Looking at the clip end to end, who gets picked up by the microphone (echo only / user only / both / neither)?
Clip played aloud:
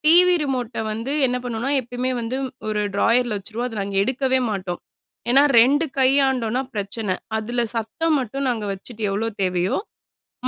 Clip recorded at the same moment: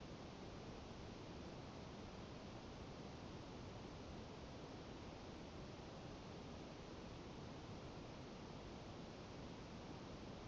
neither